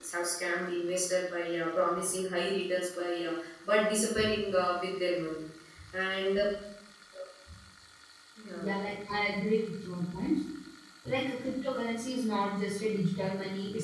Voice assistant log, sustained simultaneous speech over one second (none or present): none